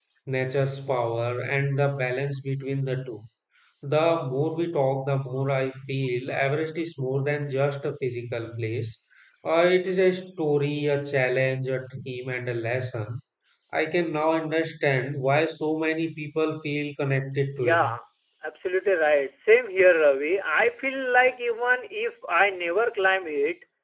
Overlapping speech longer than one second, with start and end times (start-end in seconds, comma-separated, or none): none